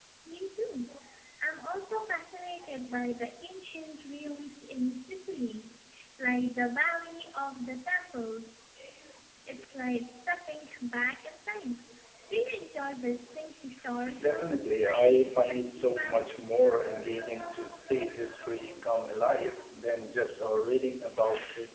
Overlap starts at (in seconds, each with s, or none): 14.0 s